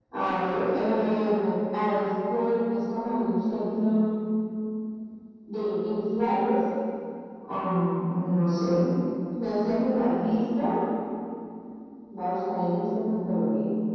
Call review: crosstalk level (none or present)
none